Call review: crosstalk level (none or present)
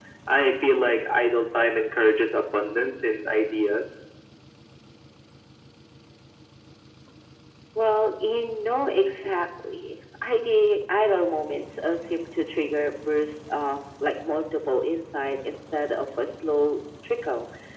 none